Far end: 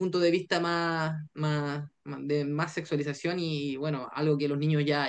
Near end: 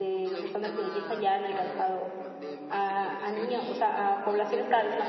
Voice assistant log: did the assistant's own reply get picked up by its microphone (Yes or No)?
Yes